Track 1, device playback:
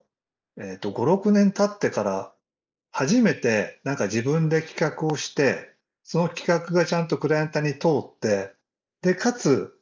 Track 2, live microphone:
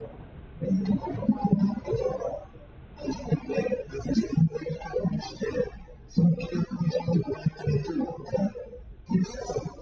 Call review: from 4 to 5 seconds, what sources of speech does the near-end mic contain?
echo only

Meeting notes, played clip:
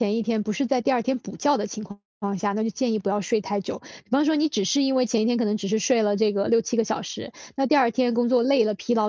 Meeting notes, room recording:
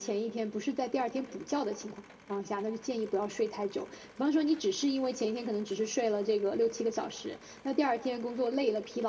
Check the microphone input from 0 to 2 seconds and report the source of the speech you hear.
echo only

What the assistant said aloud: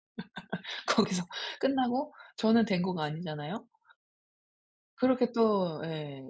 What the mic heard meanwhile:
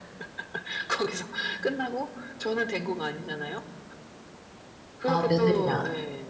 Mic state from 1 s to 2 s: echo only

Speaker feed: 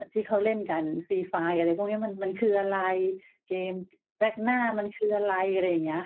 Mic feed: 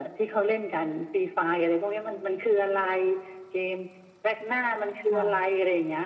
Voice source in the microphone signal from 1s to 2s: echo only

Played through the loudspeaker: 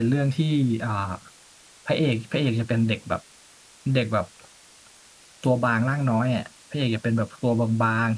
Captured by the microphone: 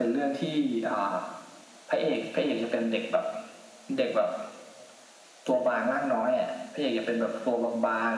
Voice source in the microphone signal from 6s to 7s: echo only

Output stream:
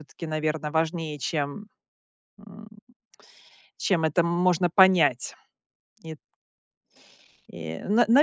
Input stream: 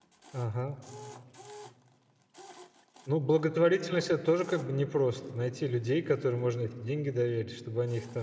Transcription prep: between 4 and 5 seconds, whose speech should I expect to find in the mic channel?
user only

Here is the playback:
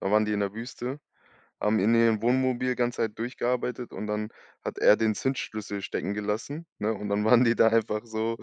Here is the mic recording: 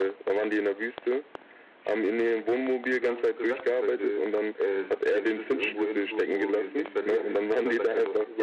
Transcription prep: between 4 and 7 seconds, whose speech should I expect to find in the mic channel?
both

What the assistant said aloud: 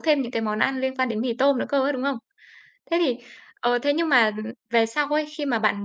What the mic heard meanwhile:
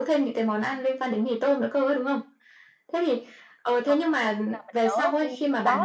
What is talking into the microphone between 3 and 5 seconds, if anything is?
both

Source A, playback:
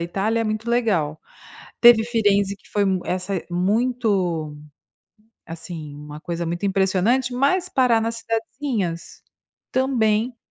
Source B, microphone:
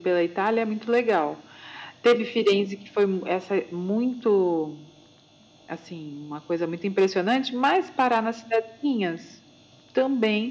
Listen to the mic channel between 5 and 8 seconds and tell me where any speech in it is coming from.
echo only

